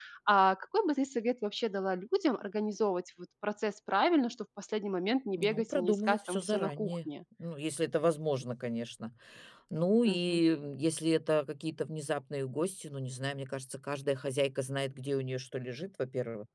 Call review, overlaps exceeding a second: present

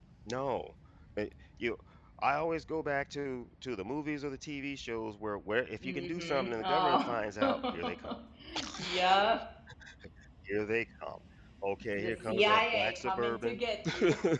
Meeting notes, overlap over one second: present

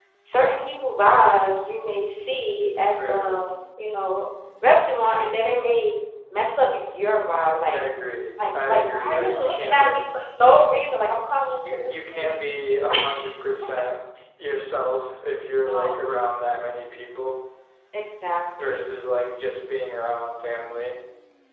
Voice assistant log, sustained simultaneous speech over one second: present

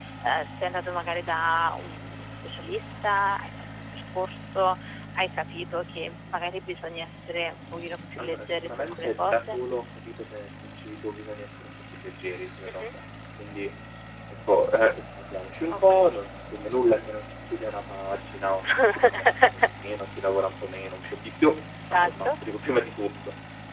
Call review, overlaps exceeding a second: present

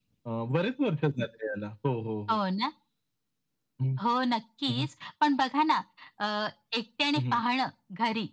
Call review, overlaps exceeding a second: none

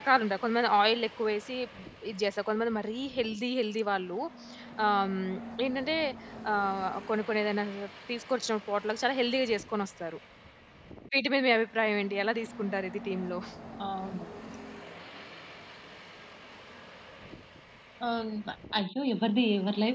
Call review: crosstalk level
none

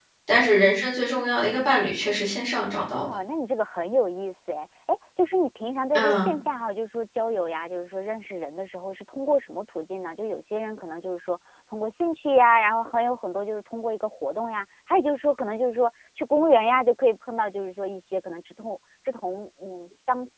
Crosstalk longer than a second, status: none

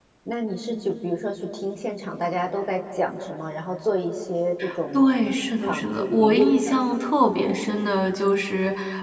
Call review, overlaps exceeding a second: present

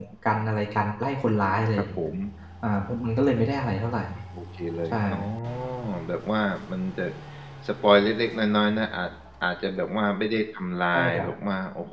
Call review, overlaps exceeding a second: none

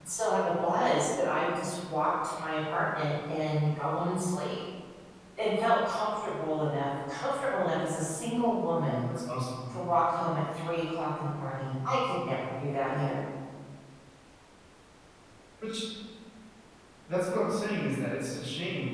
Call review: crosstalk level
none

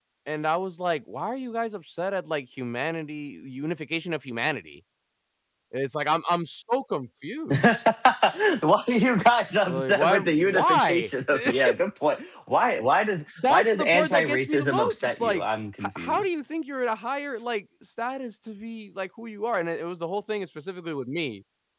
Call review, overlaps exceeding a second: present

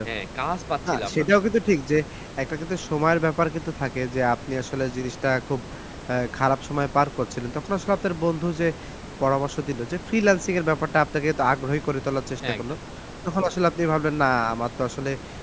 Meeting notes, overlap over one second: none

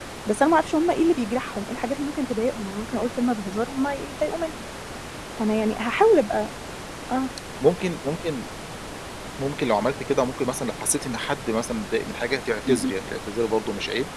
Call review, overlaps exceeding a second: none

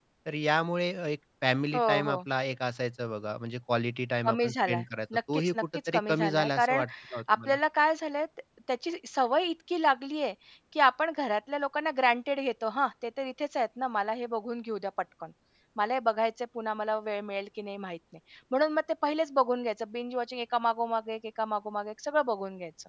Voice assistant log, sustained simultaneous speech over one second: present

